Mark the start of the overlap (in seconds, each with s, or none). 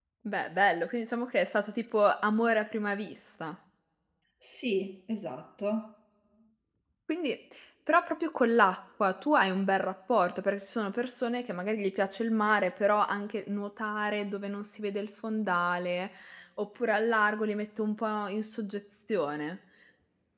none